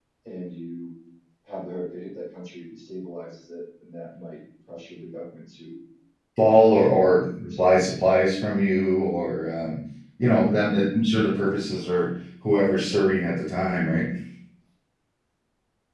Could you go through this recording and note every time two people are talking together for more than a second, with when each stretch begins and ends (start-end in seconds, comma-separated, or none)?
6.5-8.2